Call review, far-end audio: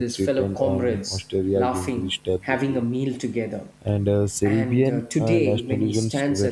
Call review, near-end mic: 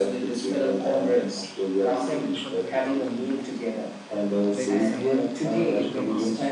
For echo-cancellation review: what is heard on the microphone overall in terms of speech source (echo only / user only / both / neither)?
both